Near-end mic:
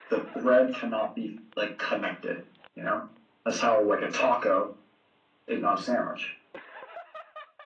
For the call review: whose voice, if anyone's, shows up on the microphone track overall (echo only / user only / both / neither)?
echo only